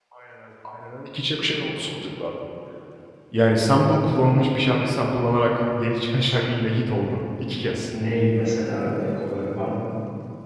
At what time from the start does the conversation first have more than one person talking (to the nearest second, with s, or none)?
none